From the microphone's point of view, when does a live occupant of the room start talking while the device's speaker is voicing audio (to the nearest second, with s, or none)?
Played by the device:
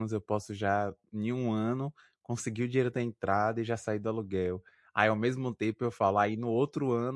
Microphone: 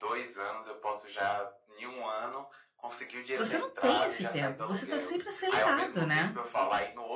3 s